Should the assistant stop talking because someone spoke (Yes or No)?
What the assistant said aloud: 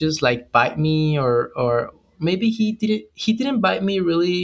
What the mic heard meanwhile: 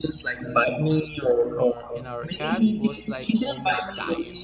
Yes